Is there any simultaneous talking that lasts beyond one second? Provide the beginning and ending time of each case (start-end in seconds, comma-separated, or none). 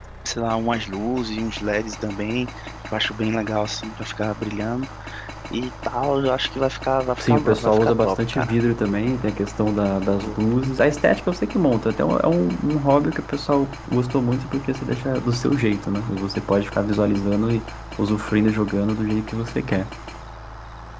7.2-8.6